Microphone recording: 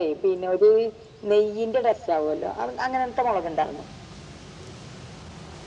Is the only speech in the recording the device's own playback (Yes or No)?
Yes